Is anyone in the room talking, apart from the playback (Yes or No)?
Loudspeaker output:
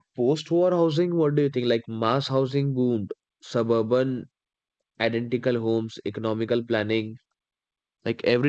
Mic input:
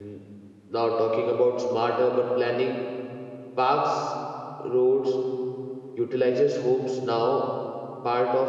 Yes